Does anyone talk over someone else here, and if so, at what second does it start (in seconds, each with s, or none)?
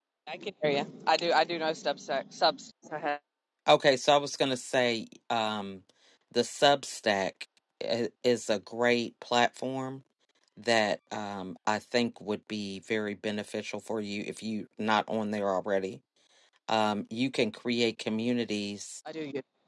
none